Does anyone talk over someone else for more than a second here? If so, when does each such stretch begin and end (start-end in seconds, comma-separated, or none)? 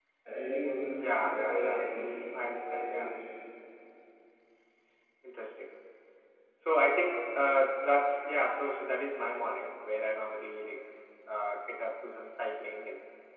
1.1-3.1